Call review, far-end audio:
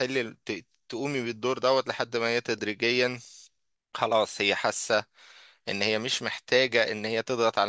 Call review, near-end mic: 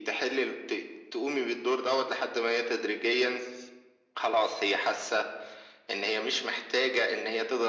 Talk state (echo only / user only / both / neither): echo only